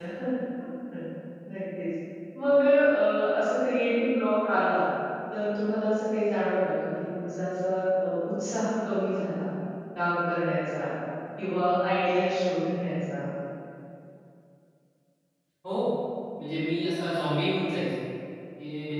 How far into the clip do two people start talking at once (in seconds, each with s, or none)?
none